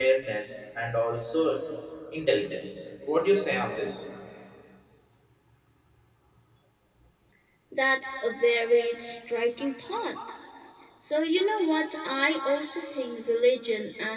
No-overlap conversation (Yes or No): Yes